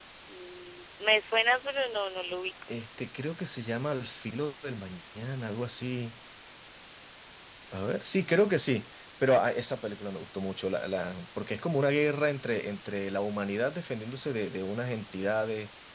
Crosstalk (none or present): none